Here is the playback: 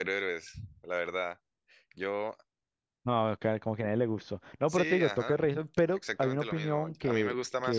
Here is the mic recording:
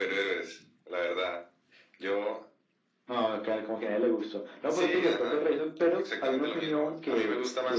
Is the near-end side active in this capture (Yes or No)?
No